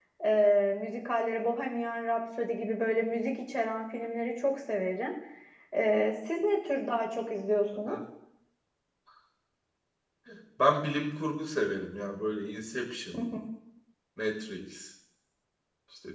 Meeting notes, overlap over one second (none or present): none